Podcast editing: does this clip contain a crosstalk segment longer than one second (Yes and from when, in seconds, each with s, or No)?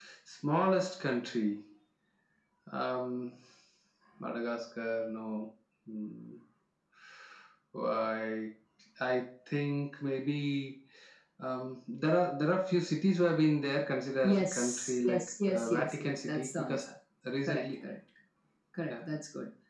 Yes, from 14.2 s